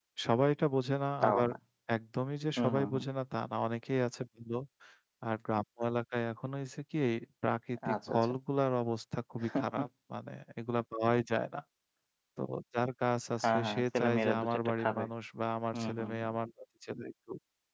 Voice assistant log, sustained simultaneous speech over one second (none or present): present